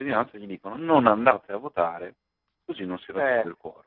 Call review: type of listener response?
taking over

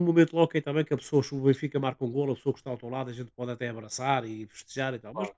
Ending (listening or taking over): listening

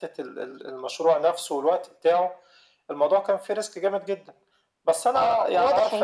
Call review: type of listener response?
taking over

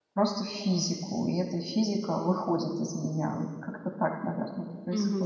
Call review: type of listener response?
taking over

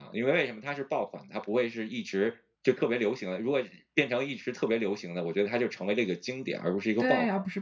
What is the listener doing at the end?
taking over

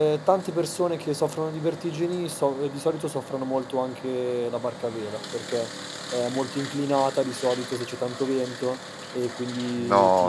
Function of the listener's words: taking over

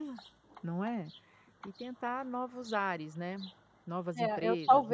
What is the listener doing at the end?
taking over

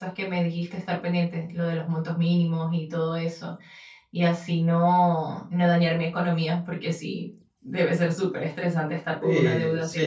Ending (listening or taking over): taking over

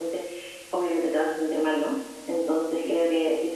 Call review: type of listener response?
listening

